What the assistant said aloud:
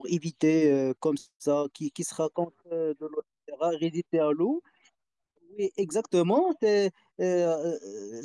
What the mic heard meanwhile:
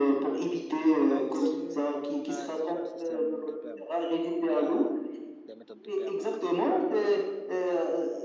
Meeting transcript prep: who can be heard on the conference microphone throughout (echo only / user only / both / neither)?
both